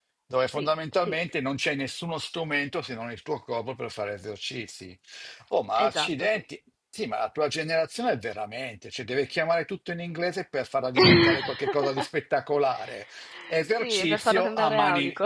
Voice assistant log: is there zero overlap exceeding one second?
No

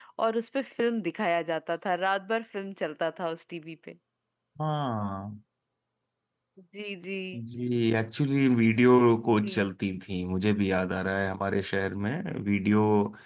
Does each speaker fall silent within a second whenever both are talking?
Yes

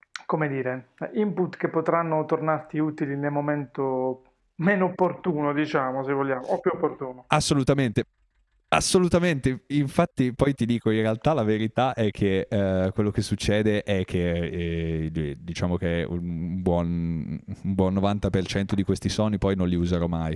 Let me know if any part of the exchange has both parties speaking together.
No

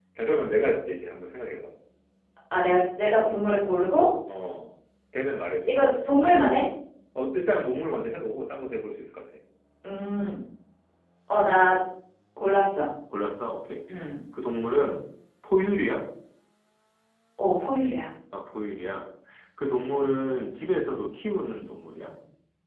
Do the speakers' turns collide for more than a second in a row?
No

